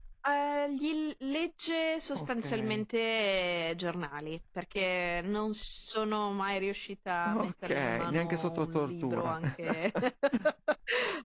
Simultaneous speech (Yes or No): Yes